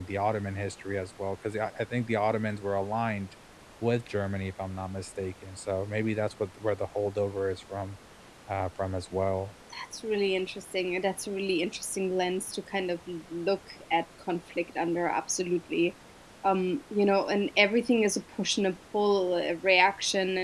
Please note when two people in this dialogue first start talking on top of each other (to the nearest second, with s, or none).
none